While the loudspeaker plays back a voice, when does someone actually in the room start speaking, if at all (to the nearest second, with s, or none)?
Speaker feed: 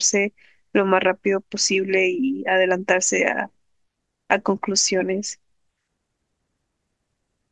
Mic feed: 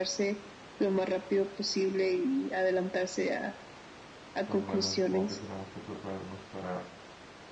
4 s